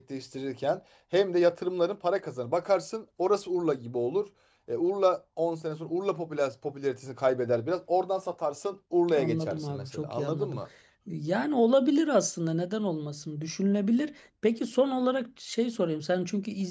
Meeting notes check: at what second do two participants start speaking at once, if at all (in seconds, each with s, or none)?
9.1 s